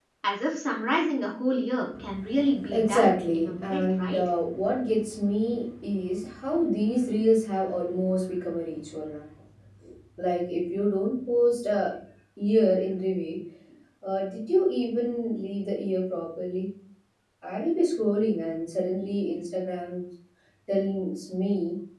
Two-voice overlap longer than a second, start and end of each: 2.7-4.3

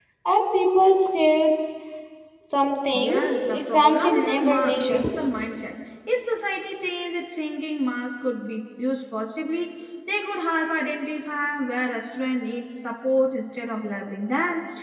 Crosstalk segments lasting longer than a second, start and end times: 2.9-5.0

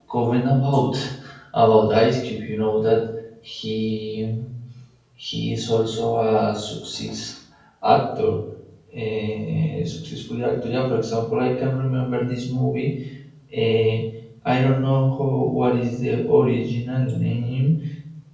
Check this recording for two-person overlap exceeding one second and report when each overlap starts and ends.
none

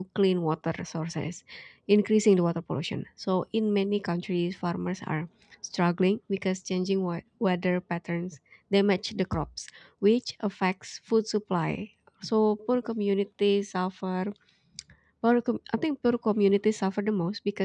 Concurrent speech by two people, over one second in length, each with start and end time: none

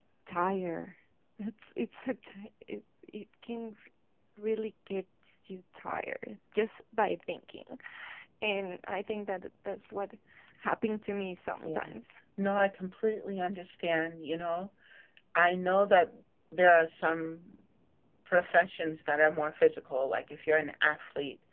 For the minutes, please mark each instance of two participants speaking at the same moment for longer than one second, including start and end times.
none

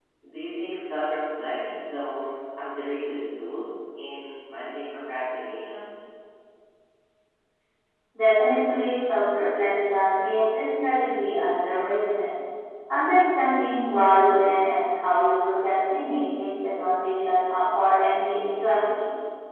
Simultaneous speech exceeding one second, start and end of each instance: none

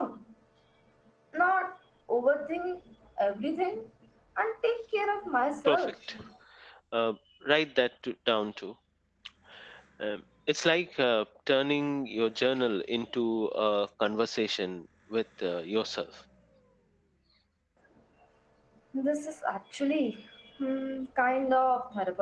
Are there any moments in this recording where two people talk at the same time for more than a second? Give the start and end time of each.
none

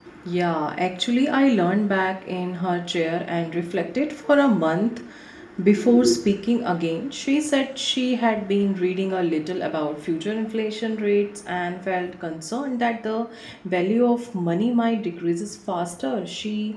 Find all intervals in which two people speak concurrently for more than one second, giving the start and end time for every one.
none

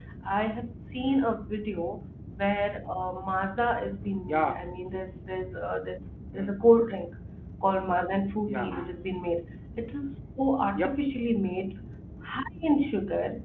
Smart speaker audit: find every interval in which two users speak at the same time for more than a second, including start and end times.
none

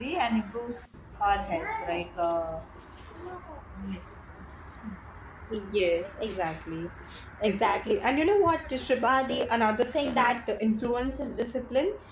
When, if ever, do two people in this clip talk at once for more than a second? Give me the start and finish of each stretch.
none

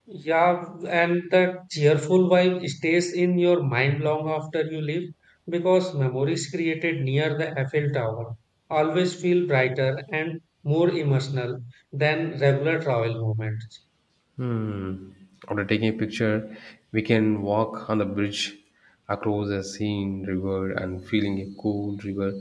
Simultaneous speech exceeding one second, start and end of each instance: none

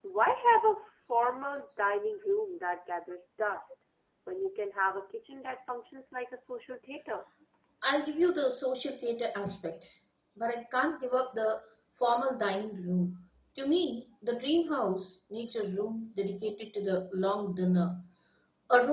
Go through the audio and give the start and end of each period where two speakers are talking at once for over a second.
none

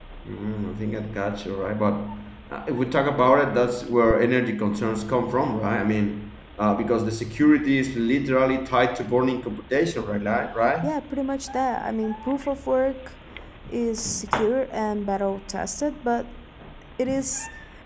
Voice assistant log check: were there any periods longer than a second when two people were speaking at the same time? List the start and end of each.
none

